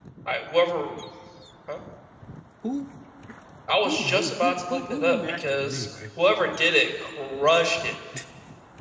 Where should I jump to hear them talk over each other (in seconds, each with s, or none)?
3.8 s